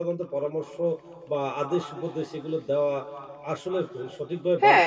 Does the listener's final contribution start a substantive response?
Yes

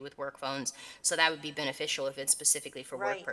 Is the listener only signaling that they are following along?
No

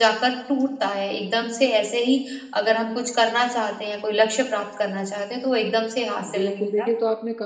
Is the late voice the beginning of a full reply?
Yes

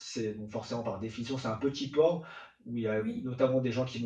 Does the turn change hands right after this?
No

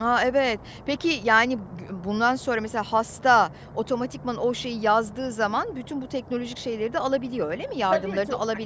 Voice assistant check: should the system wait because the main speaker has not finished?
No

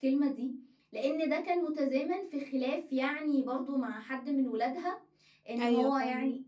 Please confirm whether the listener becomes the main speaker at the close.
No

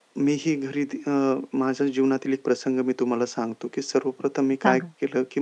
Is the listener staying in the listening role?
Yes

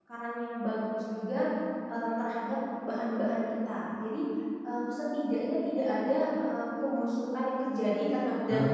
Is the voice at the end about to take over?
No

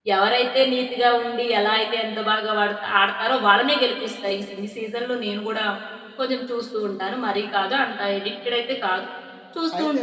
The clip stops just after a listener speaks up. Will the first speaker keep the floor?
Yes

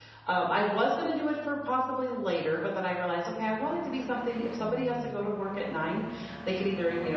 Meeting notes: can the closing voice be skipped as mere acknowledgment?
Yes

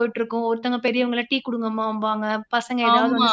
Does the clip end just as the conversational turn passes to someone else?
Yes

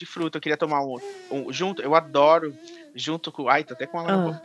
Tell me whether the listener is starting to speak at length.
No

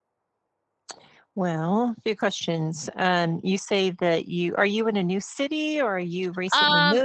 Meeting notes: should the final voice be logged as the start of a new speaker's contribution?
Yes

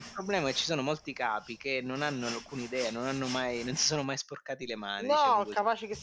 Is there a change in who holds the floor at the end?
Yes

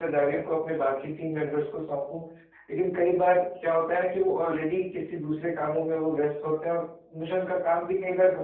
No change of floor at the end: Yes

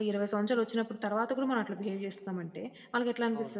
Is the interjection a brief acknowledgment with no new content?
Yes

